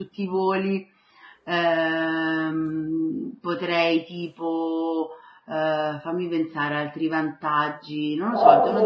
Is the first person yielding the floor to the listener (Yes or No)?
Yes